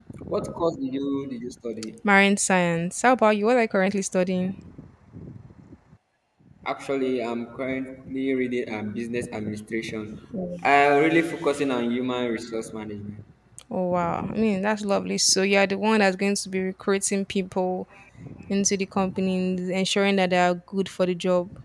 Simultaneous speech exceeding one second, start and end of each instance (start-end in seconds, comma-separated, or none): none